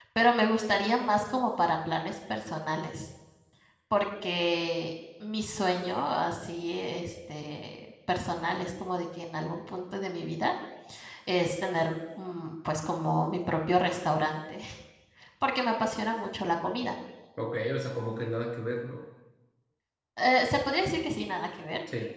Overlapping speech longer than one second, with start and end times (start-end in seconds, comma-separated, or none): none